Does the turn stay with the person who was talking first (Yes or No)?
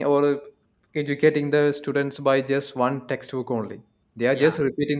Yes